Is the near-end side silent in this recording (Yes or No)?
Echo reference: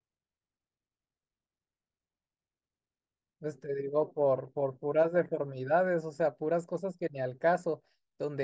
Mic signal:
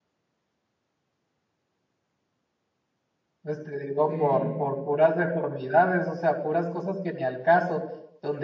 No